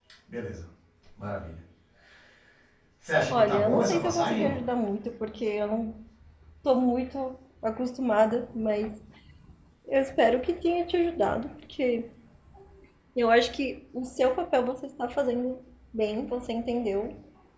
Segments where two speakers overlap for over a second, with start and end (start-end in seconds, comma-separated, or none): 3.3-4.6